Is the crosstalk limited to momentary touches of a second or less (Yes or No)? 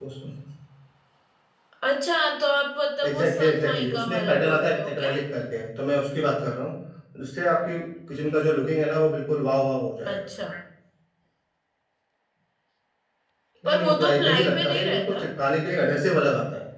No